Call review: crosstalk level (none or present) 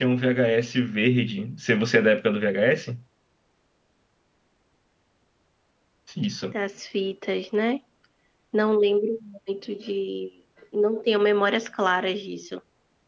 none